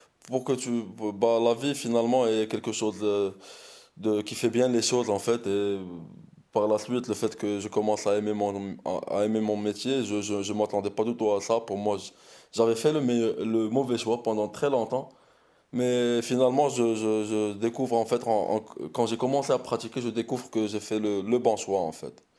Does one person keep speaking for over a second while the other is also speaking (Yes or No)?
No